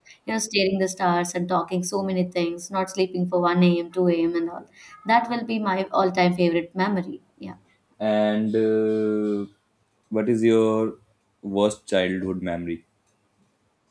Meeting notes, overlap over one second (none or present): none